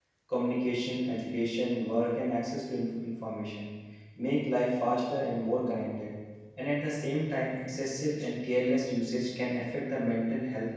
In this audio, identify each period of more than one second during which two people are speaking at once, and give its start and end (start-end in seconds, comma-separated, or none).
none